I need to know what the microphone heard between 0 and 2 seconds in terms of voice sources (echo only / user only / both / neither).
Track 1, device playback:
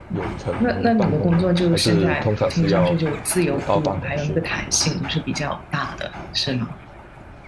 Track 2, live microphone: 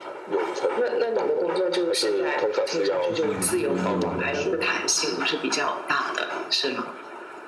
echo only